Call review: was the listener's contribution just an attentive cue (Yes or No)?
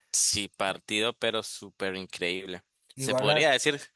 Yes